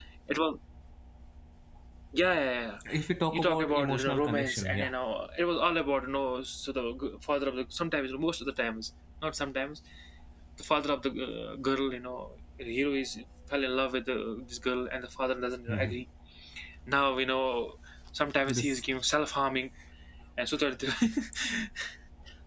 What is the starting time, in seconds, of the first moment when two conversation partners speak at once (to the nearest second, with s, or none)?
3 s